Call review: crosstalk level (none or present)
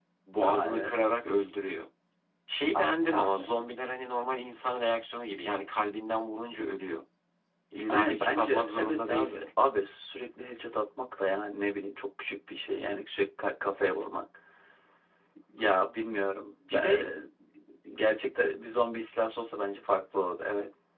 present